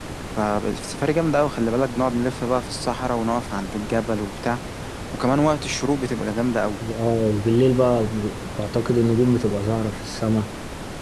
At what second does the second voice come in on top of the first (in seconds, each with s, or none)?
none